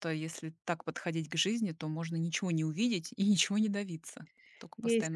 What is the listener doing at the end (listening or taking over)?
taking over